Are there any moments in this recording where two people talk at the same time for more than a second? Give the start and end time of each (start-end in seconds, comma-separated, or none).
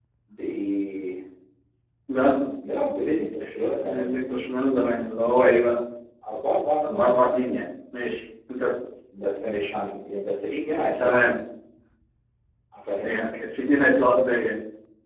none